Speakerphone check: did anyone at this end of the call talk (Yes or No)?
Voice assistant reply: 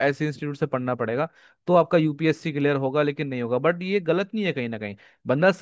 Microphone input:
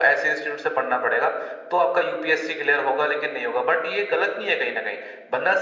No